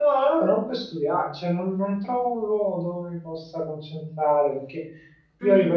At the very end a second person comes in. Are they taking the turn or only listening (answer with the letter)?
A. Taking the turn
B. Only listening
B